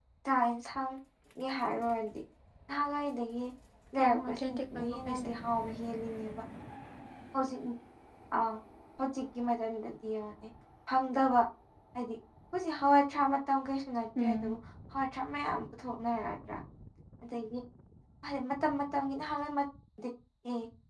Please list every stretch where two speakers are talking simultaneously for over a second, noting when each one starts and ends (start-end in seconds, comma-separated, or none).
4.0-5.3